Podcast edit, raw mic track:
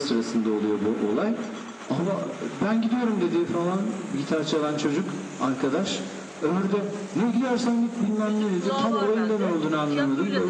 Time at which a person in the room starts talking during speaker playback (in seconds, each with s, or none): 8.2 s